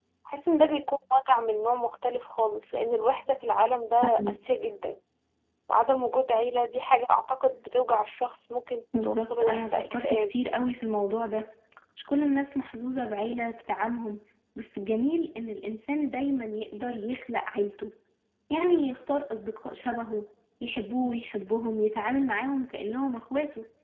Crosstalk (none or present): present